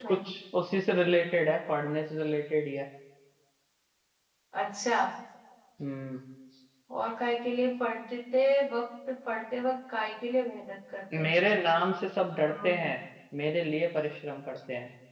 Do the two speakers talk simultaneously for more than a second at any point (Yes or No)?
No